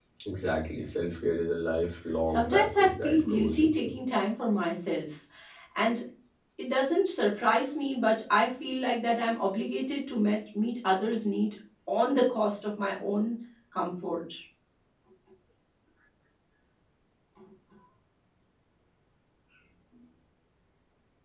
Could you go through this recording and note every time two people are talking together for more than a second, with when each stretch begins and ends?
2.3-3.9

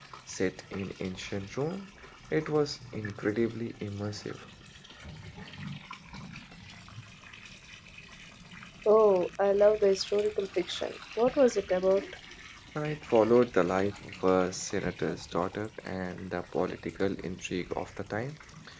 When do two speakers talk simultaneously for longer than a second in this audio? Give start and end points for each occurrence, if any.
none

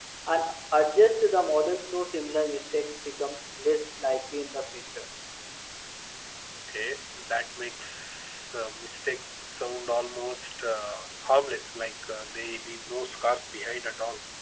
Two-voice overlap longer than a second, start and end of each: none

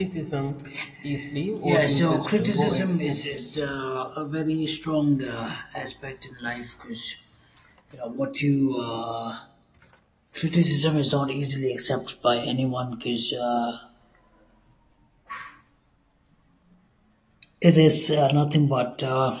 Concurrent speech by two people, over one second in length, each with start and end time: 1.6-3.4

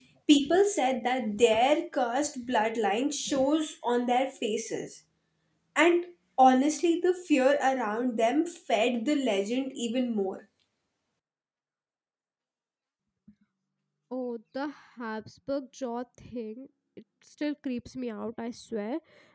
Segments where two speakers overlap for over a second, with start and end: none

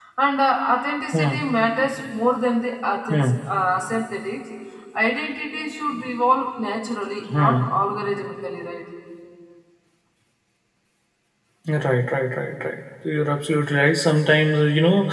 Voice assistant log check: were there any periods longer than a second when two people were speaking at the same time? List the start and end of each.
none

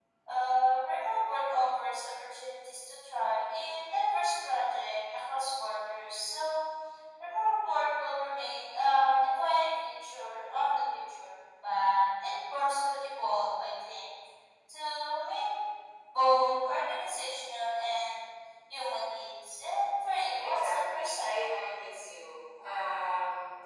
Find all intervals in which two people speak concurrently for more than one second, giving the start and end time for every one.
20.4-22.1

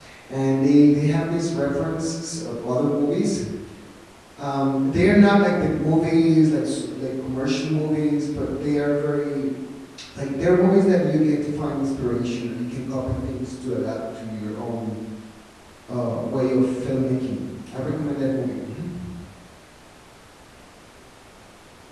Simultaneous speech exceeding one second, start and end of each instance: none

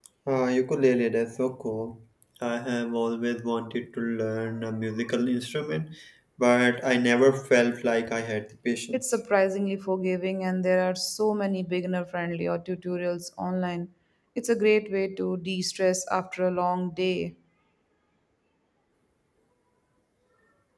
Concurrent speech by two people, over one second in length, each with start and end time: none

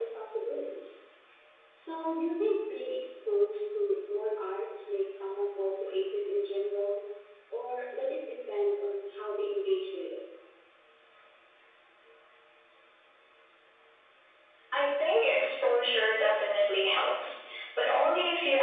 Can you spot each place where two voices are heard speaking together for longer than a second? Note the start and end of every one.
none

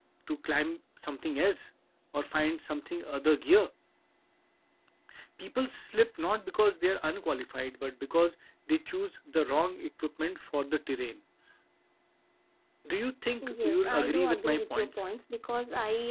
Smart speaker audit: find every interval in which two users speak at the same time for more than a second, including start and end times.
13.4-15.0

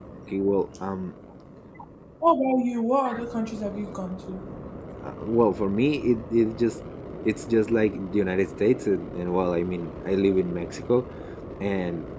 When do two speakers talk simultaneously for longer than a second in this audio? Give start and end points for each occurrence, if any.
none

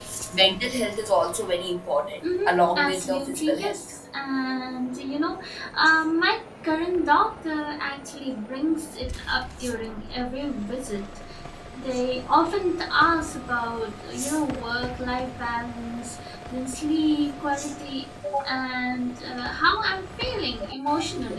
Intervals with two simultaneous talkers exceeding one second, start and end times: 2.5-3.8

